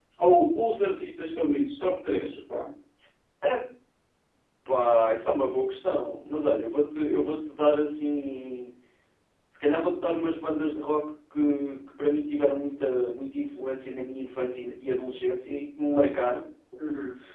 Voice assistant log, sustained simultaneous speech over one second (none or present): none